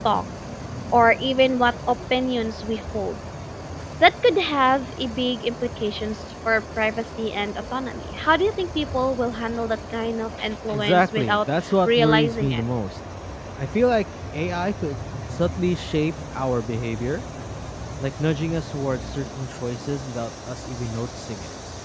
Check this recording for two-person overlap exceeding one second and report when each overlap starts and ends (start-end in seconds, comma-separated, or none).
10.7-12.6